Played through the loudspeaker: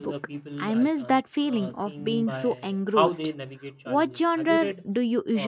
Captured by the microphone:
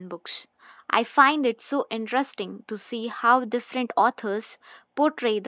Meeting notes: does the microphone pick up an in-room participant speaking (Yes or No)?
Yes